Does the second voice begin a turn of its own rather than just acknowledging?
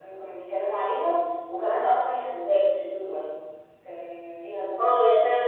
Yes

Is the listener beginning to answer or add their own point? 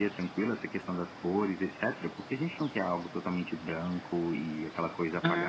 Yes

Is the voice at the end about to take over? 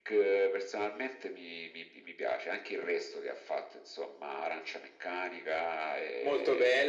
Yes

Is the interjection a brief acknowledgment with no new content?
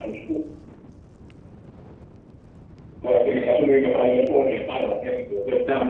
No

